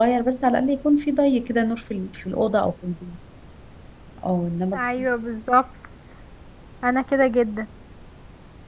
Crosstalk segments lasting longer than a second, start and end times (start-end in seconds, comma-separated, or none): none